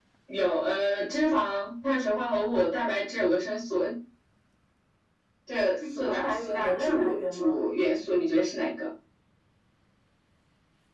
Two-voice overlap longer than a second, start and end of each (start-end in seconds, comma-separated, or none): 6.0-7.6